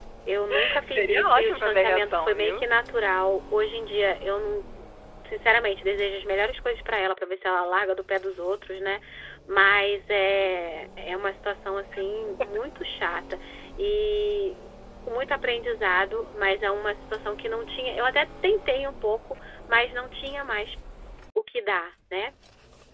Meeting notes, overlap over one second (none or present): present